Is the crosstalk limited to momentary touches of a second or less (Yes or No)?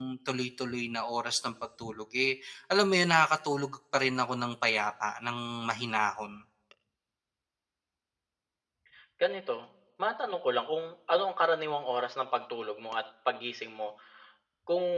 Yes